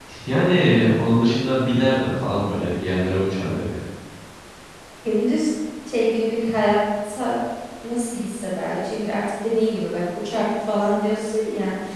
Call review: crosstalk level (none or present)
none